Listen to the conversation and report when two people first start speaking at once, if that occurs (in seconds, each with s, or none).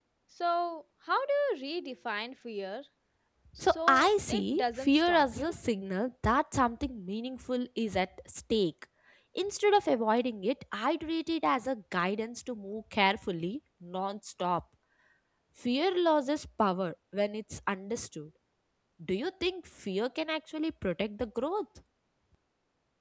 3.6 s